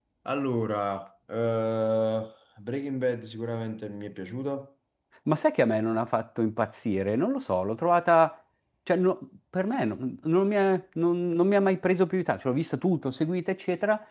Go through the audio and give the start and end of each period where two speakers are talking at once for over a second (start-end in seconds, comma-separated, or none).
none